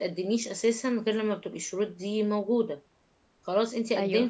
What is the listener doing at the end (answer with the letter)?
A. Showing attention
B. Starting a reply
A